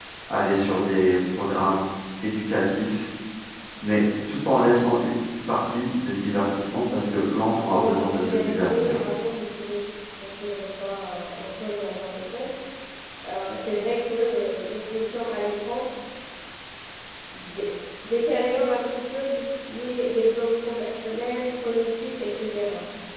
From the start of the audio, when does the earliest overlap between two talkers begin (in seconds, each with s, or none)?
7.7 s